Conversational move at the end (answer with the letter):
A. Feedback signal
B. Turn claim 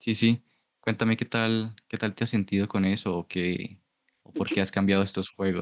A